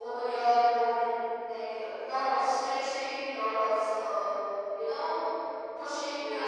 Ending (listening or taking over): listening